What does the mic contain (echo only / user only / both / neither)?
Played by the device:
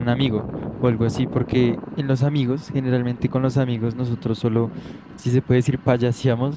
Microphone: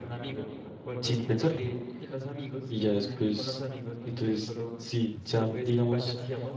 both